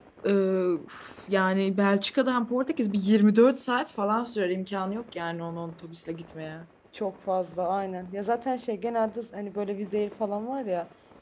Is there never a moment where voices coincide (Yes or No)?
Yes